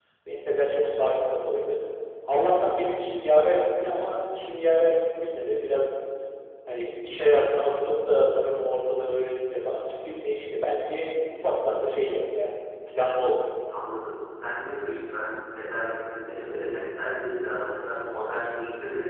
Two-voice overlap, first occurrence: none

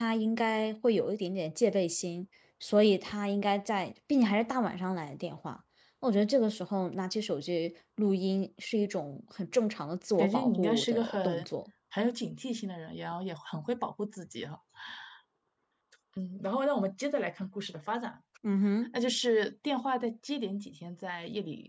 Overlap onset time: 10.2 s

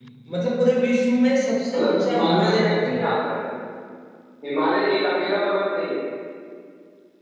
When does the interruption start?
1.7 s

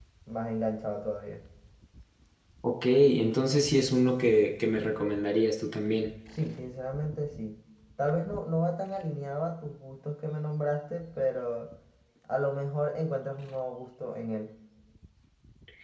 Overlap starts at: none

